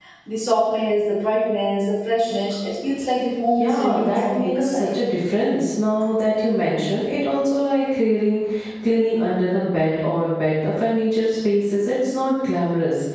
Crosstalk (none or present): present